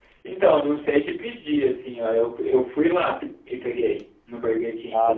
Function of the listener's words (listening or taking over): listening